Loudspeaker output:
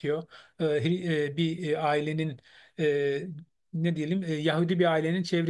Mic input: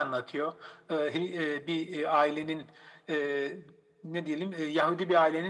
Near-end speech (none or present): none